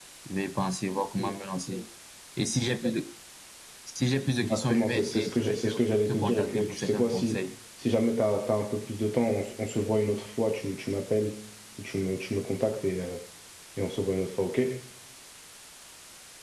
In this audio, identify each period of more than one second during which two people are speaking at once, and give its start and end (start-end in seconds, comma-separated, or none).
4.3-5.7, 6.1-7.4